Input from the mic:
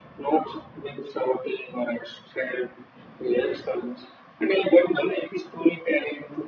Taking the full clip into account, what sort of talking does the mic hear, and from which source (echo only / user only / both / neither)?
echo only